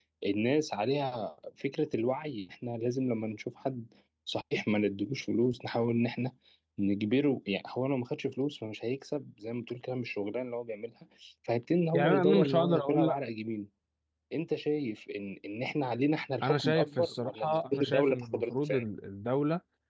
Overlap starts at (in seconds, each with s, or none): 11.9 s